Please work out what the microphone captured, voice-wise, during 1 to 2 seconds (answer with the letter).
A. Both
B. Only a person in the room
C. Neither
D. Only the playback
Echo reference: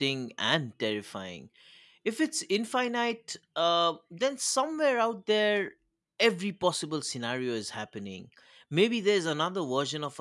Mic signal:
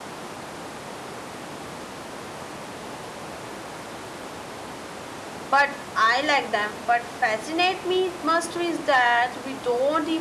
C